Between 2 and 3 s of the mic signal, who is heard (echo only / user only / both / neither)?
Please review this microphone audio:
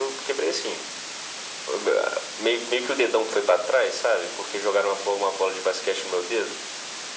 echo only